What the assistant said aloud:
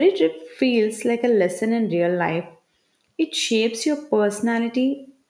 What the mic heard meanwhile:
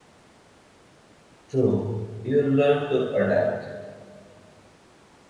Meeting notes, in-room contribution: present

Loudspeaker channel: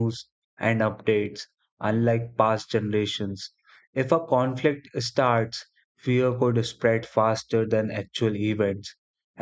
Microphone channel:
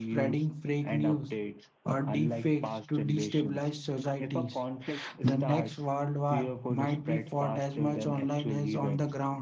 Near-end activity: present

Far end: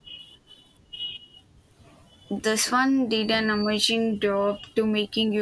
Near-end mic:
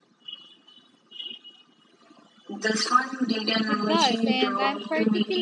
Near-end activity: present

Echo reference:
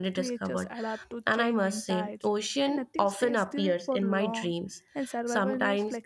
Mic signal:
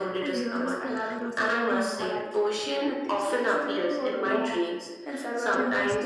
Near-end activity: present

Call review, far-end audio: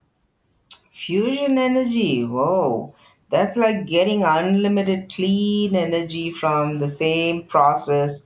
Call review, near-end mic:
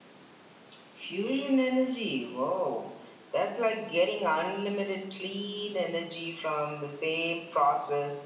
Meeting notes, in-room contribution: none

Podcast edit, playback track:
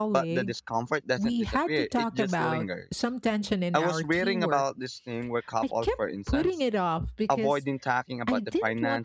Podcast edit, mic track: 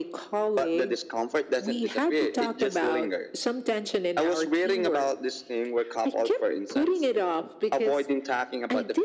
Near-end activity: none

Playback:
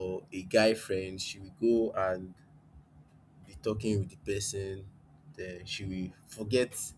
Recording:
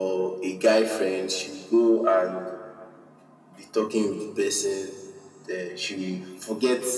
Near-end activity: none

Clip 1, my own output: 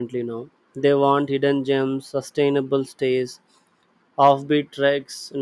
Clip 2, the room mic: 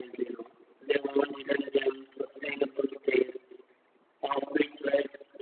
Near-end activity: none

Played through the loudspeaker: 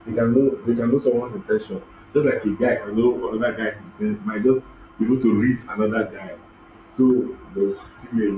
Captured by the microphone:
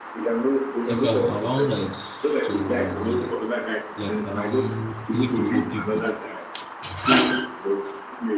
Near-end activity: present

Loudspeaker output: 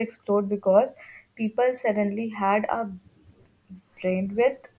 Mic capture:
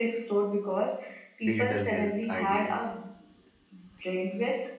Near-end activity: present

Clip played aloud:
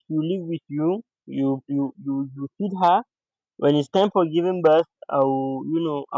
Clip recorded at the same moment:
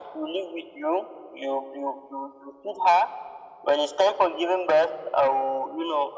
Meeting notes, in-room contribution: none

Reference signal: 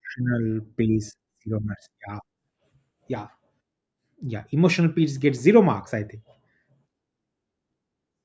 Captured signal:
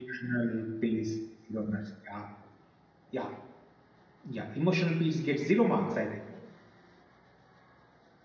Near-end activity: none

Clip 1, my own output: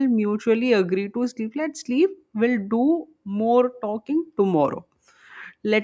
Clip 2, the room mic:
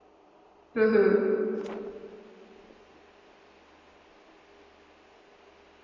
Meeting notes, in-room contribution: present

